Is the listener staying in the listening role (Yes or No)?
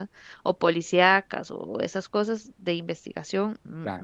Yes